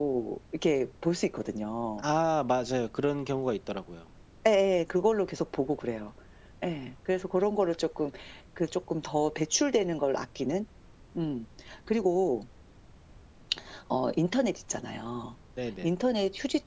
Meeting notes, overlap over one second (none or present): none